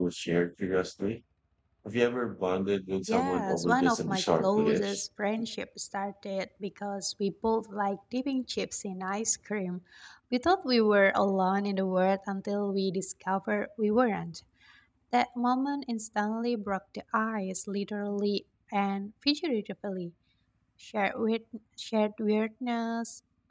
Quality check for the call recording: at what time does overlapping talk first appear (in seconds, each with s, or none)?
3.1 s